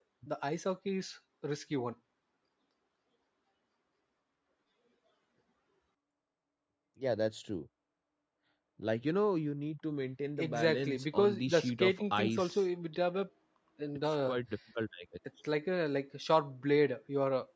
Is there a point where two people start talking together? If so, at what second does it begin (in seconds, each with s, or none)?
10.4 s